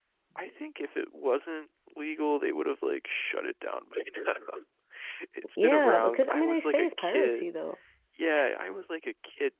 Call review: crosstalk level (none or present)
present